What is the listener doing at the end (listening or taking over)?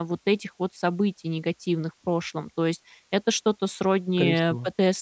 listening